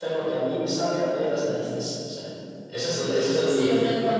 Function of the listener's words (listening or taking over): taking over